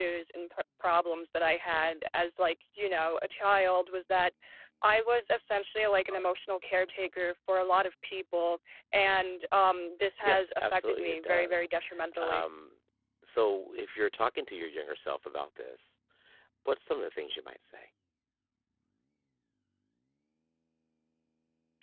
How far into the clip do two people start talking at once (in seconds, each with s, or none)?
10.2 s